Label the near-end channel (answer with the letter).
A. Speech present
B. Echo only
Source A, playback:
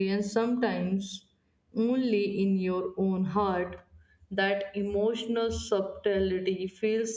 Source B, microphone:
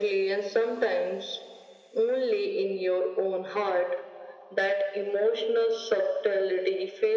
B